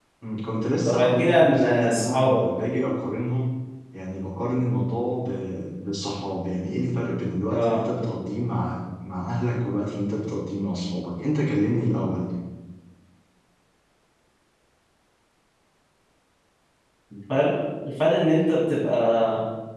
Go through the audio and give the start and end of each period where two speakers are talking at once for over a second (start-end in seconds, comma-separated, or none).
0.8-2.4